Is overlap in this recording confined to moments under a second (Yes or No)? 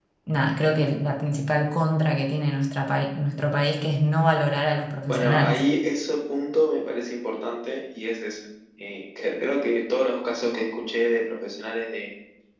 Yes